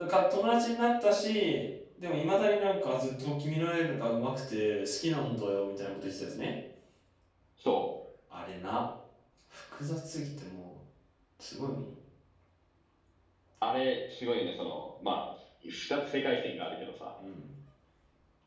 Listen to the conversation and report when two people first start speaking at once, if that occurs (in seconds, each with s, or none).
none